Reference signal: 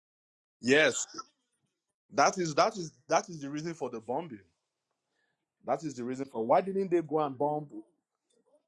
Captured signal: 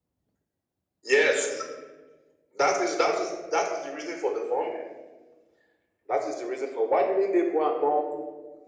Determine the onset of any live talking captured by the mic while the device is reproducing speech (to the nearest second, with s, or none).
none